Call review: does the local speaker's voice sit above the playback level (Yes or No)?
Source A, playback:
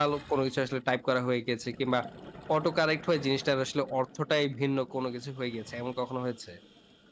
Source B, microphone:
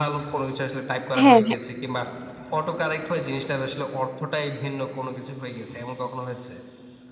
Yes